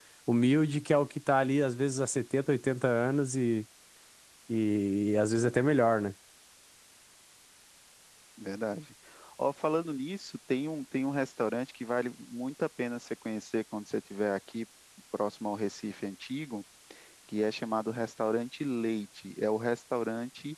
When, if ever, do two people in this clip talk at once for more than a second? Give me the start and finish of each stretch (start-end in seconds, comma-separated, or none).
none